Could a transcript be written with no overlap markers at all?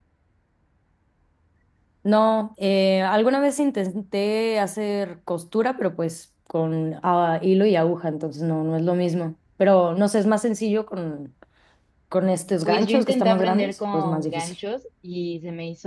No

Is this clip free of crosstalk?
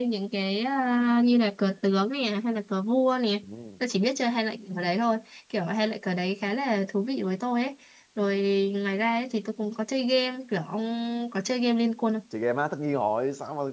Yes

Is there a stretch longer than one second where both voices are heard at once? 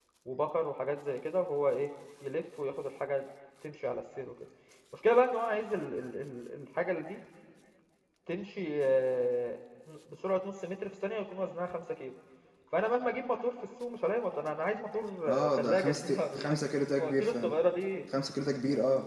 Yes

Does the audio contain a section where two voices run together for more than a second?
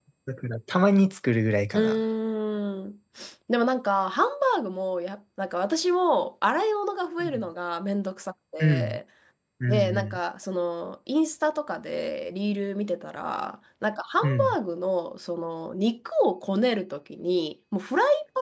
No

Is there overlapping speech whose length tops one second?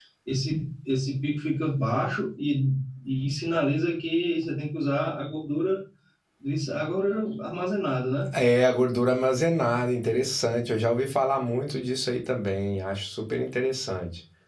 No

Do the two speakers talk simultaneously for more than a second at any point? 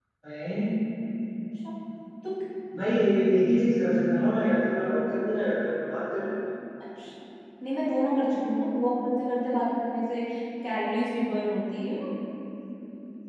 No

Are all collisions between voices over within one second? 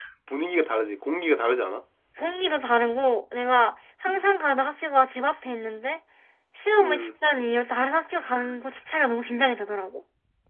Yes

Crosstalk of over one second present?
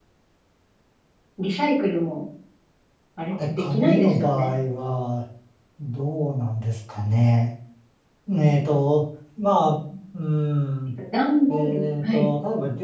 Yes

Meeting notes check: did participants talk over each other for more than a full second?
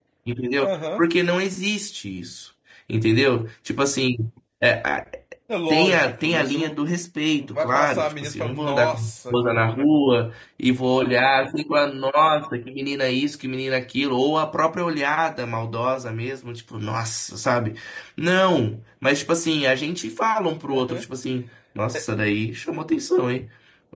Yes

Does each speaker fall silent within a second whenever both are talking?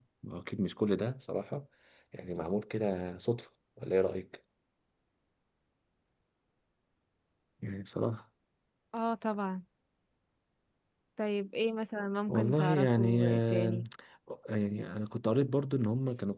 No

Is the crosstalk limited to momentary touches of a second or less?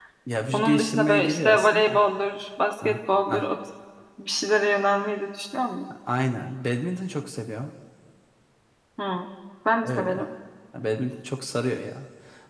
No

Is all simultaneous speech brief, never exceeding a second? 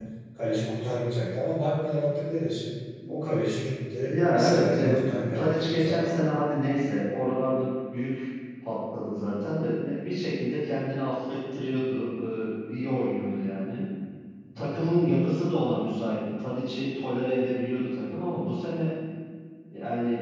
No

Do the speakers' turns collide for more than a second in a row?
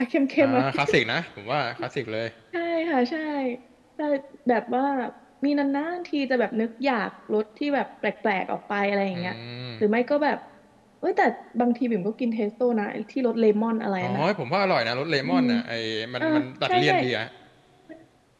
No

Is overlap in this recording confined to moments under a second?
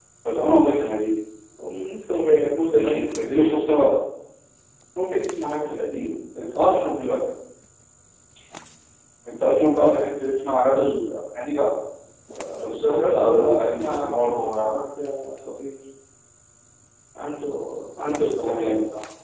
No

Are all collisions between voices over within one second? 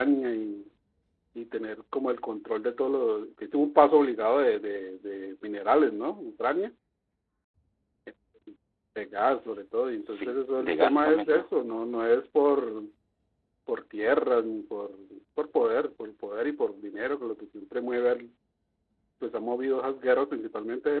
No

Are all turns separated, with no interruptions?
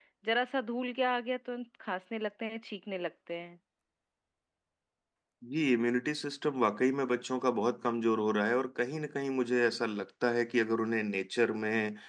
Yes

